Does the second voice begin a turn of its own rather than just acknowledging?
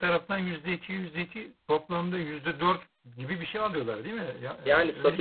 Yes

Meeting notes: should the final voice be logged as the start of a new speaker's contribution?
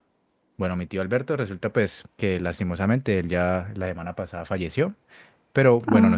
No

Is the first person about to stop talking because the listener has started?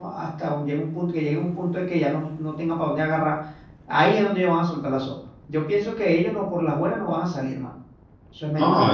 Yes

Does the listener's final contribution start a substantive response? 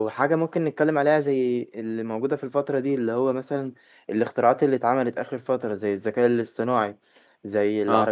No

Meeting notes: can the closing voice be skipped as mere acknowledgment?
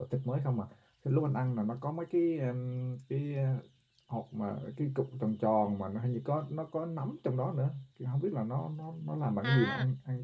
No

